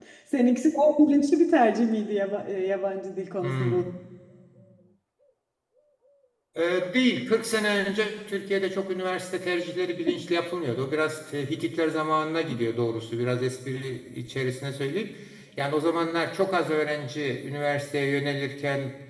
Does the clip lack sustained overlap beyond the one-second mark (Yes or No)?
Yes